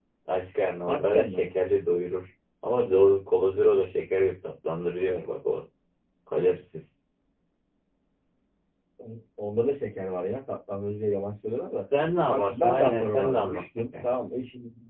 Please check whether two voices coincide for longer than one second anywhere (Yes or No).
Yes